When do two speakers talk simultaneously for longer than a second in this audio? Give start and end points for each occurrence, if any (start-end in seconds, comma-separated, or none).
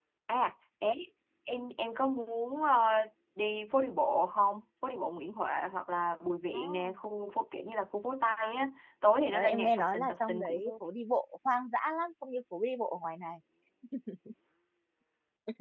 9.3-10.7